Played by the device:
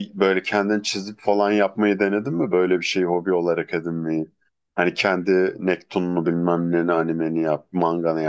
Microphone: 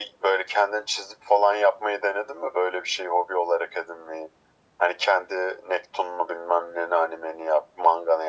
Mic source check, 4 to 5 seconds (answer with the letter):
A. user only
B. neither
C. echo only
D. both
C